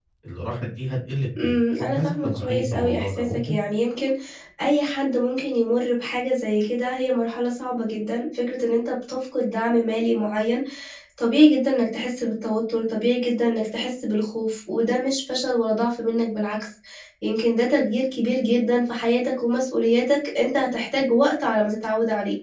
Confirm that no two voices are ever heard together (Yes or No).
No